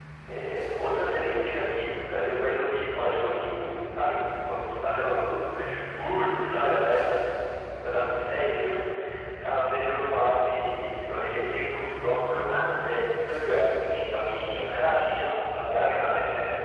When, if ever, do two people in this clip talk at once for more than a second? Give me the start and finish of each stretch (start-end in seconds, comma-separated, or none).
none